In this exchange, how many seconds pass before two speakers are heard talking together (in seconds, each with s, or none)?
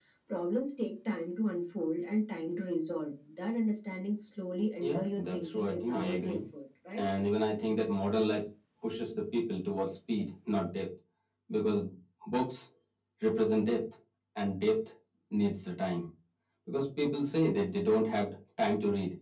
4.8 s